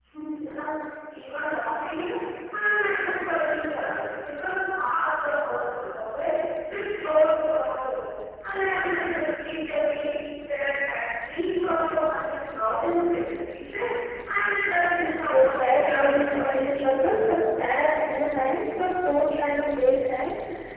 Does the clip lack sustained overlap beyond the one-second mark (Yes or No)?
No